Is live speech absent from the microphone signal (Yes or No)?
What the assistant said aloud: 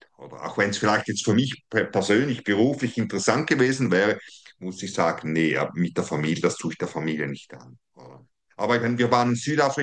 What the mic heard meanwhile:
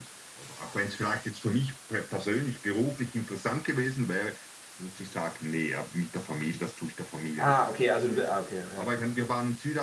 No